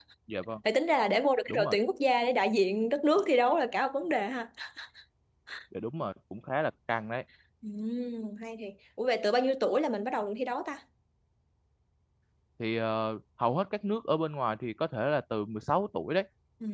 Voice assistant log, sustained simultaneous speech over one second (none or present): none